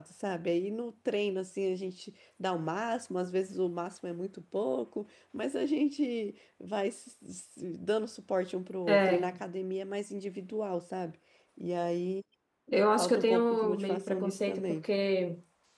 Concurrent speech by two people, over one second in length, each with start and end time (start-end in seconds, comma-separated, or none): 13.0-14.8